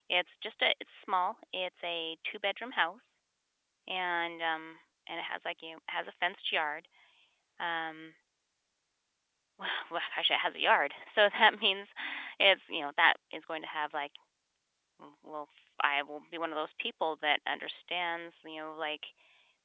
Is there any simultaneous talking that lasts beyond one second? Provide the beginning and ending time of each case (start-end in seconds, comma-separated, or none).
none